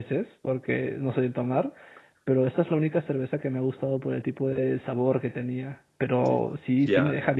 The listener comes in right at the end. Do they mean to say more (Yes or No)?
No